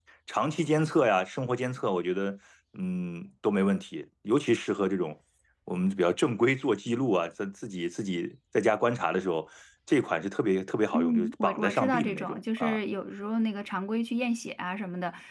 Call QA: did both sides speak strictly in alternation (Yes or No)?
No